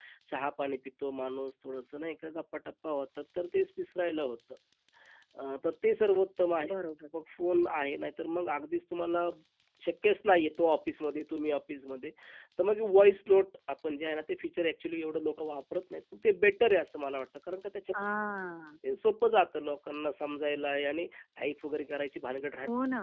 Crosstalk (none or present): none